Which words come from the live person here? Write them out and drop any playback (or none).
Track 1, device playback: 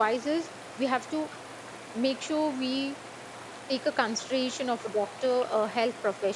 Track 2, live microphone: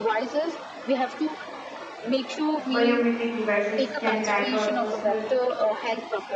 biometric devices can track our personal